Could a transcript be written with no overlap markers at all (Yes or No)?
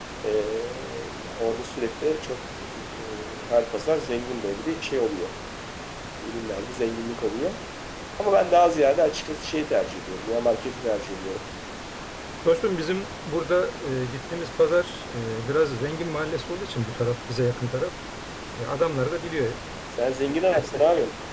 Yes